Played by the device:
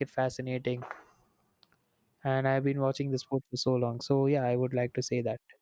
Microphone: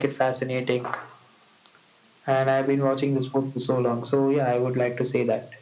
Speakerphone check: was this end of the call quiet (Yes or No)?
Yes